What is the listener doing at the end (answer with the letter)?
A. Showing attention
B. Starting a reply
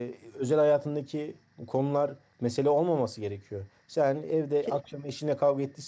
A